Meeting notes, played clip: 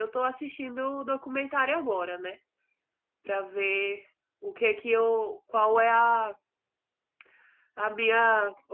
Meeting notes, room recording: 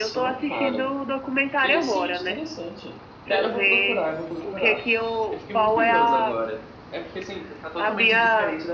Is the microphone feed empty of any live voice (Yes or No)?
No